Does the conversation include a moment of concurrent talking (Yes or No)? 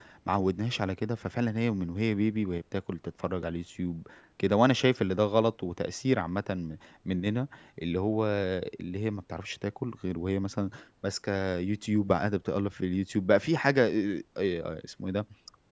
No